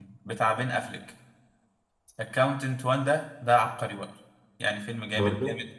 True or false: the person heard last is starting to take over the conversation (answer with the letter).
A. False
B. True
A